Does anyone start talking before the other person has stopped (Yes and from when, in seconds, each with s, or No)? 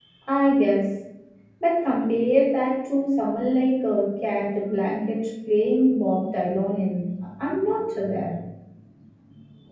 No